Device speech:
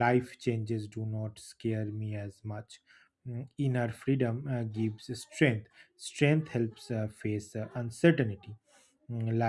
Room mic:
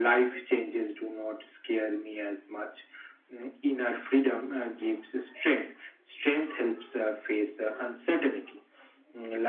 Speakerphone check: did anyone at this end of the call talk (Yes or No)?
No